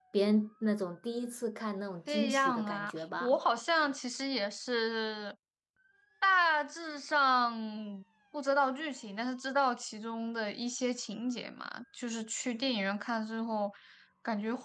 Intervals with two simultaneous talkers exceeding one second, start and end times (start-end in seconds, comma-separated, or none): 2.1-3.4